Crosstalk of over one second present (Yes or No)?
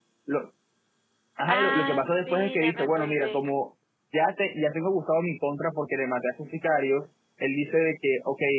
Yes